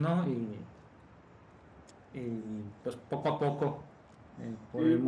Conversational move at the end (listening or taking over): listening